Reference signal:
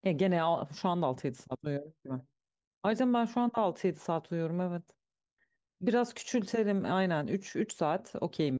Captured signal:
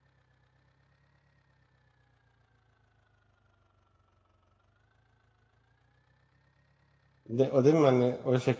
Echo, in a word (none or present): none